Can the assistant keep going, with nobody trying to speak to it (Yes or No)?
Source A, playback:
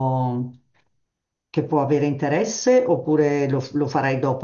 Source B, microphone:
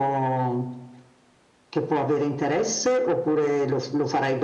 Yes